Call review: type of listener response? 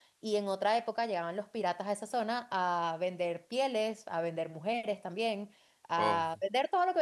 listening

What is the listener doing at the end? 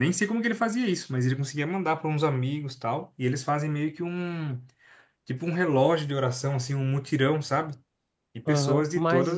taking over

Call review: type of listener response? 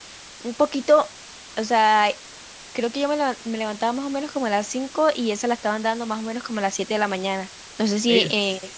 taking over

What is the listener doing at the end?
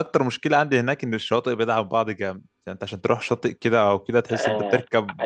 taking over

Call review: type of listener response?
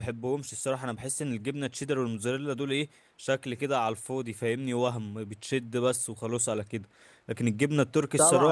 taking over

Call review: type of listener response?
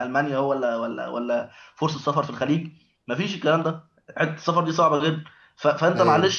listening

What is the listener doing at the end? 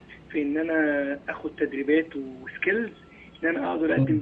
listening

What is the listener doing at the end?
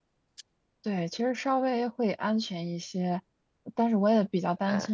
listening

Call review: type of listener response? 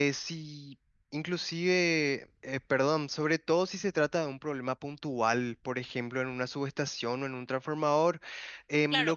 taking over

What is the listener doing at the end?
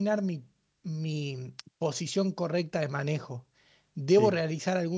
listening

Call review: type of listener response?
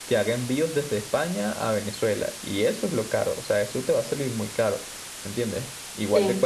listening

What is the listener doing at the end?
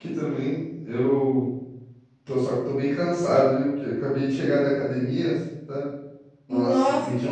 listening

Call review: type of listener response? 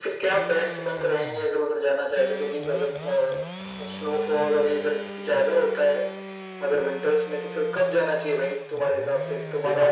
taking over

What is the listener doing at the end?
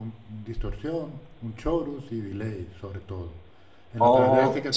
taking over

